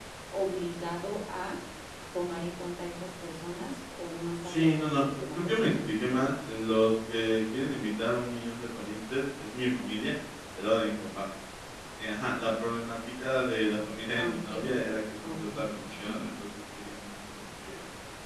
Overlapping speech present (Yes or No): Yes